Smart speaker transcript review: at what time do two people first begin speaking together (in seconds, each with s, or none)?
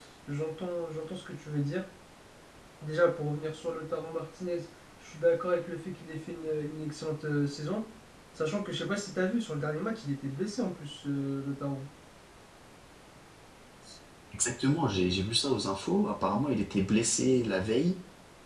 none